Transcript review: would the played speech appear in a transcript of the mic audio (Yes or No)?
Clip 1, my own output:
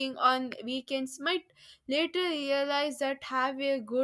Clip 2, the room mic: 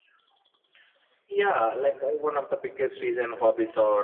No